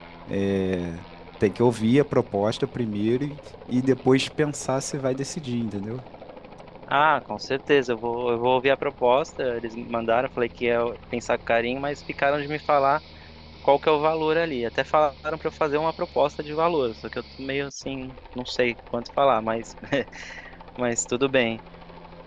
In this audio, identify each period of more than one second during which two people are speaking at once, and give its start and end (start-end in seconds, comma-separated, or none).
none